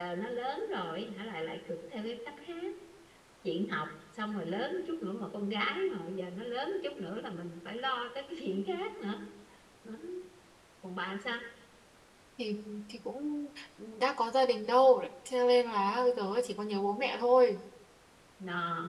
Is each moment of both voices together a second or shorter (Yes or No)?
Yes